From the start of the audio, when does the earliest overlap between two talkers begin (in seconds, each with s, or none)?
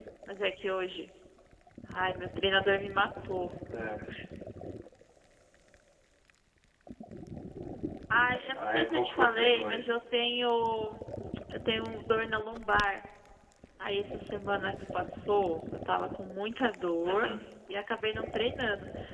8.5 s